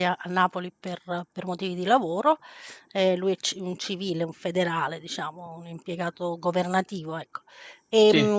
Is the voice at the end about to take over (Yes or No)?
No